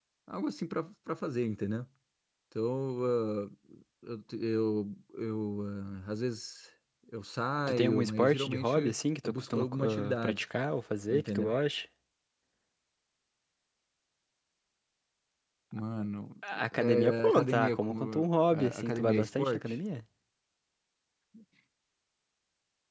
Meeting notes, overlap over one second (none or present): present